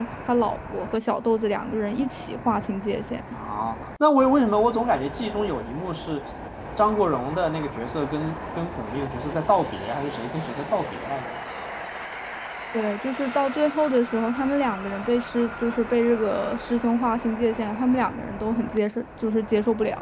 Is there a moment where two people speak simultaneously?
No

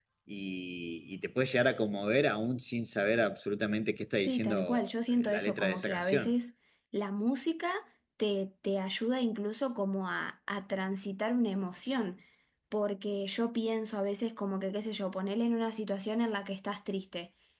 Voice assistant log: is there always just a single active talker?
No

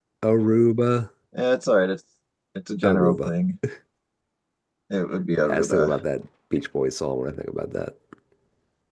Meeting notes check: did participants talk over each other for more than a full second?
No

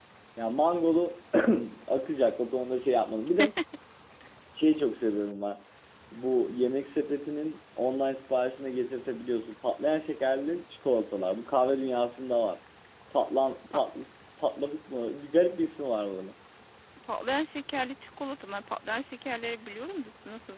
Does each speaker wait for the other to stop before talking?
Yes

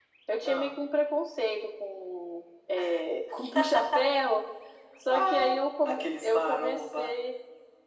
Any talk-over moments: Yes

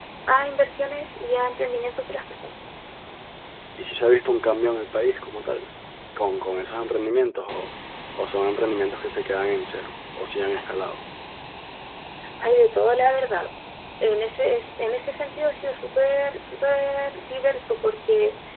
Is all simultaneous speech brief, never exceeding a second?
Yes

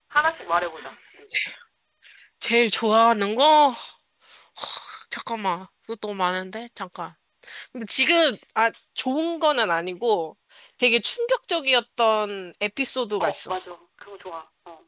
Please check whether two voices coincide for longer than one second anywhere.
No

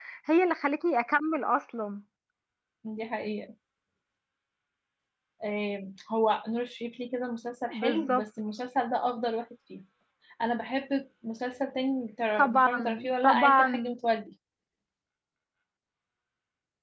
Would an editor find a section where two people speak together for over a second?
Yes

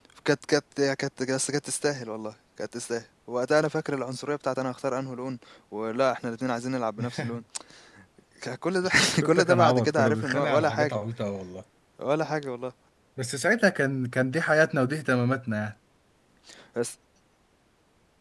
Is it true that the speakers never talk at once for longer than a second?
No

